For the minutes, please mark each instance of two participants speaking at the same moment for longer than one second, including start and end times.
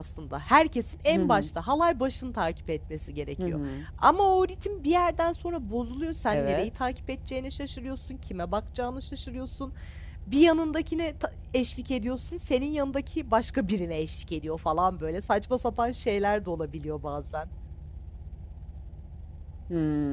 none

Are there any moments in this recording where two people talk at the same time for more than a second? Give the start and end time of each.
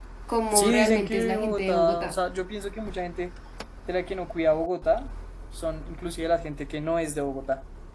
0.5-2.1

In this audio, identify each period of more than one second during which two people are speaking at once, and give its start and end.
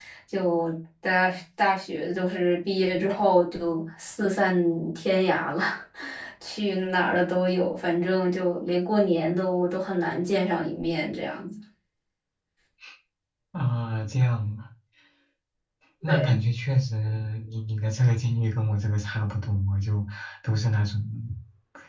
none

